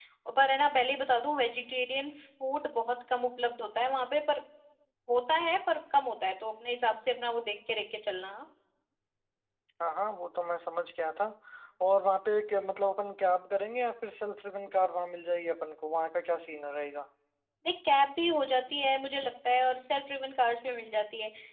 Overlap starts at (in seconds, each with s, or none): none